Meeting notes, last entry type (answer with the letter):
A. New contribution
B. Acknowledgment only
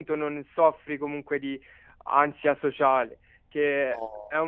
B